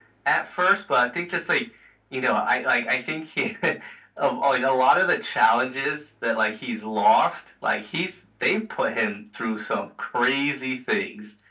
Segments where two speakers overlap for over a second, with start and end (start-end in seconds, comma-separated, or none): none